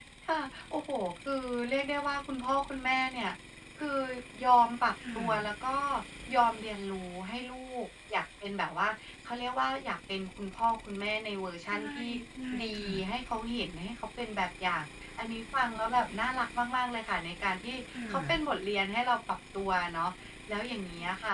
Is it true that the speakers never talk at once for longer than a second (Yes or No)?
Yes